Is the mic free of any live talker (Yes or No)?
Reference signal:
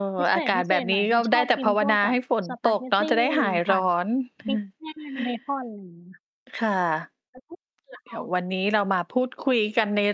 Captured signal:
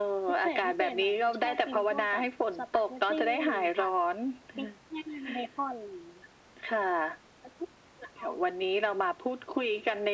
Yes